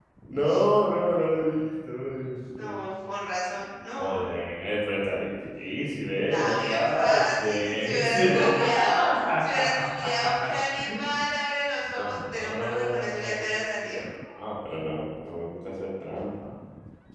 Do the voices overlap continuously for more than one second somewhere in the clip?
Yes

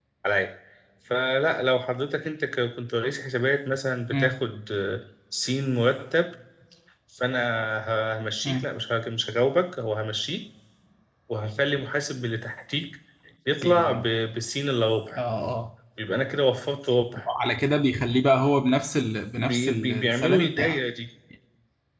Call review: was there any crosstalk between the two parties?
Yes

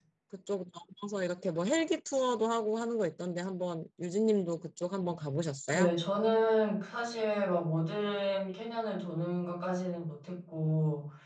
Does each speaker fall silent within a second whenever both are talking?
Yes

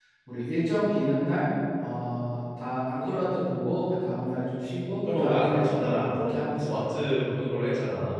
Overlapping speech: Yes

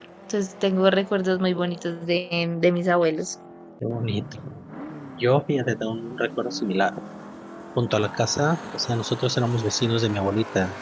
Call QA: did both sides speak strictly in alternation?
Yes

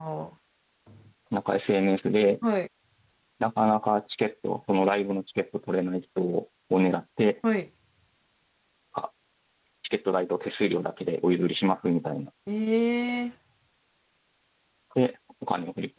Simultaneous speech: No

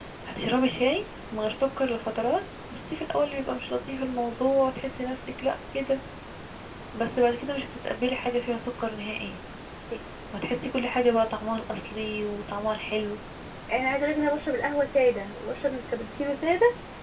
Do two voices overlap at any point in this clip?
No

